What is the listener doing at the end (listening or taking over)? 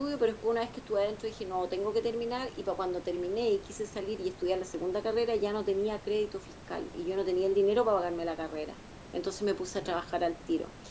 listening